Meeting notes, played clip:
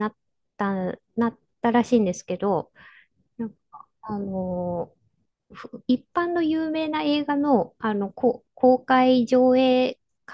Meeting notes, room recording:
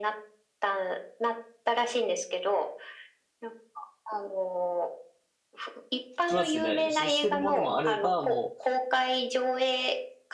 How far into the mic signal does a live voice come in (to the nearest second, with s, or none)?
6 s